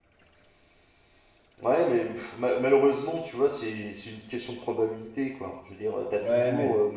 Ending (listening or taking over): listening